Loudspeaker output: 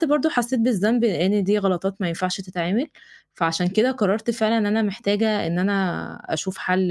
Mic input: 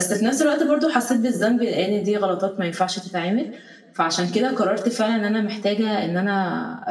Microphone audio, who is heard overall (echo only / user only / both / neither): echo only